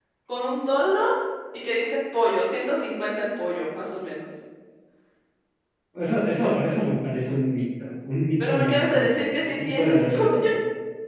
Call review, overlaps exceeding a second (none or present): present